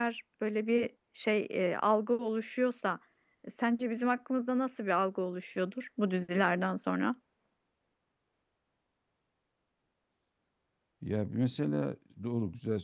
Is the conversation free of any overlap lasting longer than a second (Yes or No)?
Yes